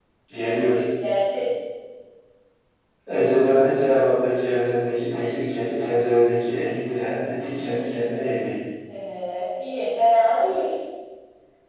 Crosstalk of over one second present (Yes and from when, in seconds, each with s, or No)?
No